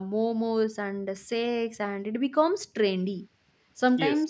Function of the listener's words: listening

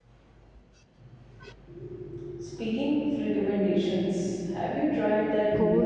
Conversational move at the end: taking over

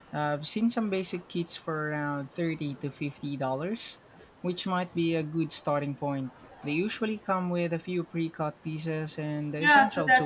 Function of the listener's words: taking over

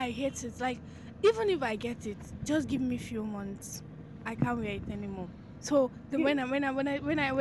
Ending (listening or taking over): listening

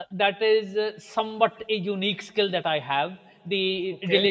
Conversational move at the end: listening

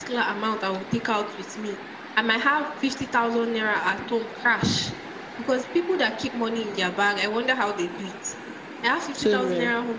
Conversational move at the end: listening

